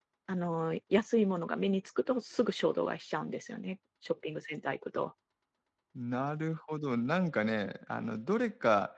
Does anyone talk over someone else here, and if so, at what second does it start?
none

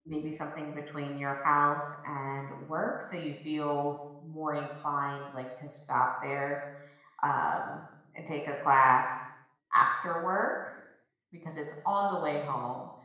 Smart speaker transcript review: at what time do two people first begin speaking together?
none

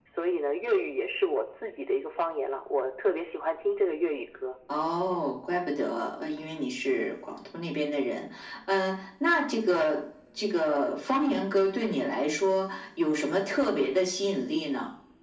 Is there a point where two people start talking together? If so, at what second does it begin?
none

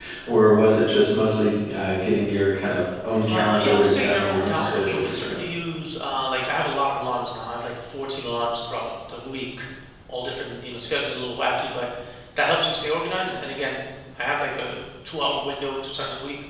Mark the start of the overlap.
3.3 s

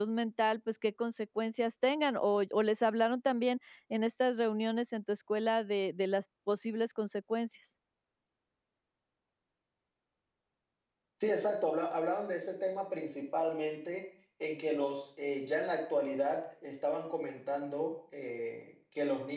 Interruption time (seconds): none

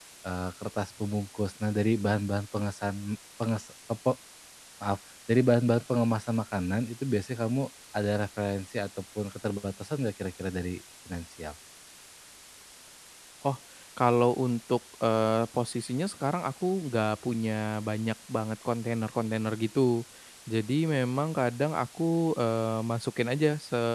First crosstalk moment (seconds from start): none

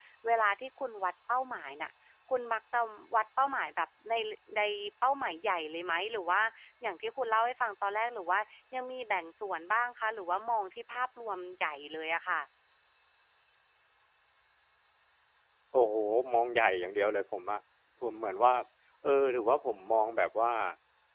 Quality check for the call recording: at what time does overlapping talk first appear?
none

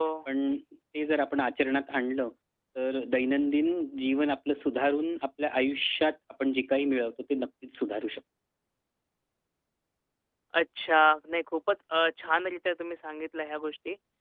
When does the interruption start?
none

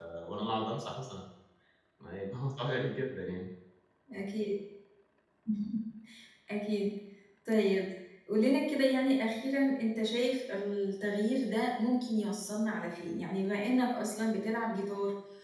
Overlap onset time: none

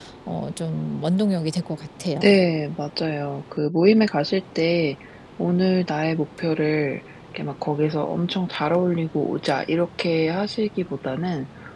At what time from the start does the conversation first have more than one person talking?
none

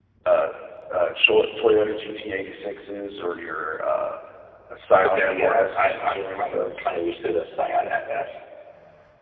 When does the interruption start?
5.0 s

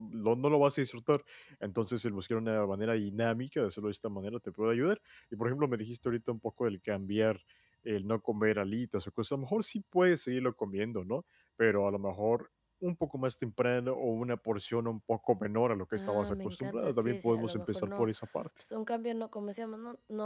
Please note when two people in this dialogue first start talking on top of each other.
15.9 s

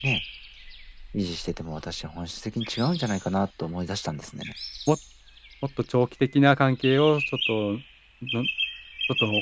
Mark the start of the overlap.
none

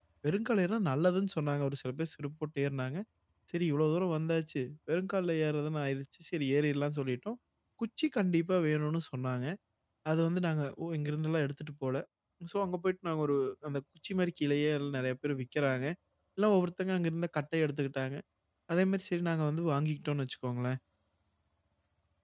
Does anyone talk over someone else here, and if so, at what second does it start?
none

